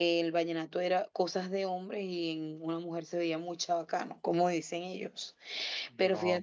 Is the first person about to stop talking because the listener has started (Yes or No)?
No